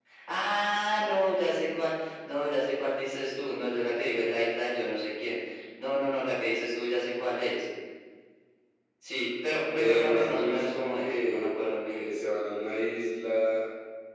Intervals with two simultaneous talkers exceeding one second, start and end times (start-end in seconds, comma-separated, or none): 9.8-12.1